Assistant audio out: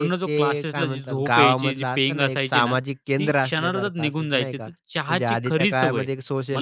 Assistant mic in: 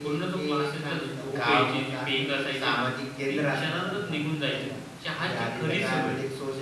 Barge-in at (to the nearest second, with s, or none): none